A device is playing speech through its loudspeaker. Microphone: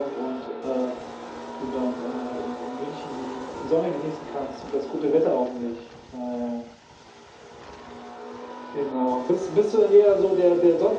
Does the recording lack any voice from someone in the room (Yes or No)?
Yes